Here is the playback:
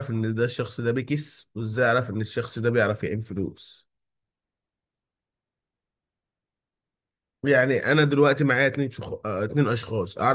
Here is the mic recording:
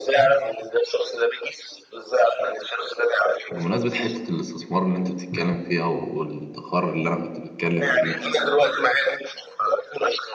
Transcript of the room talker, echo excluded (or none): بمناسبة حتة الاستثمار اللي انت بتتكلم فيها والادخار اللي انا كنت بتكلم فيه